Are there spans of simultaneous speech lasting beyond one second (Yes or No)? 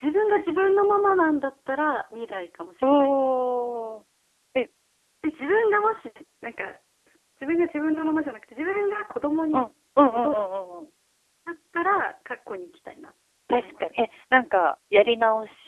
No